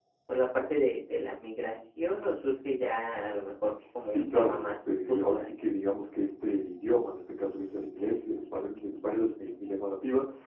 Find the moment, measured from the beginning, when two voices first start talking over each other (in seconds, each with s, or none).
4.1 s